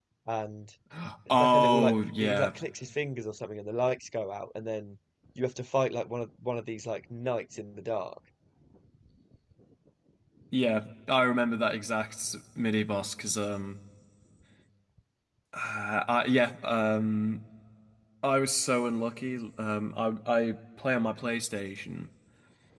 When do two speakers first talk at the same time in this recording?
1.3 s

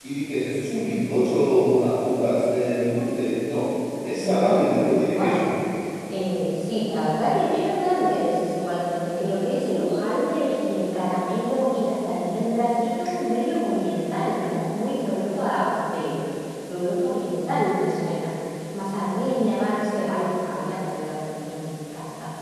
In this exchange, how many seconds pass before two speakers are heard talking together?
4.2 s

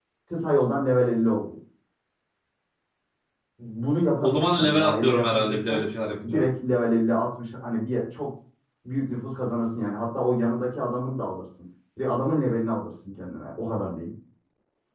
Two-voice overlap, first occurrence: 4.2 s

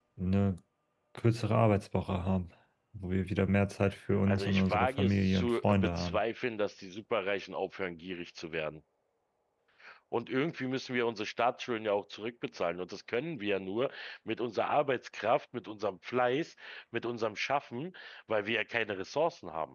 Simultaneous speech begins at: 4.3 s

